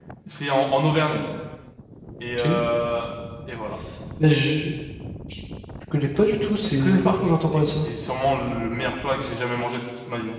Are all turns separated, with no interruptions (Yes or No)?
No